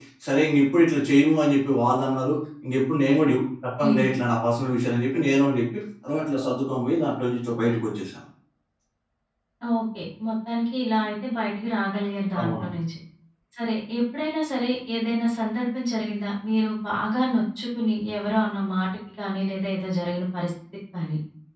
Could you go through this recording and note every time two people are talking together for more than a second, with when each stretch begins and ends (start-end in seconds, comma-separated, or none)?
none